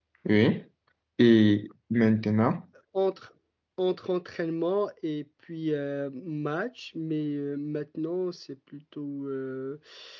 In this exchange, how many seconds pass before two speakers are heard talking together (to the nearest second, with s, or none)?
none